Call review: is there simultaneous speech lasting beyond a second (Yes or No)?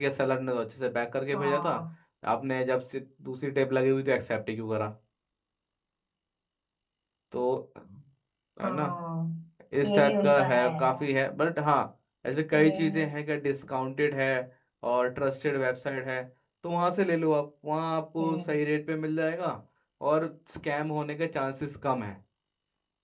Yes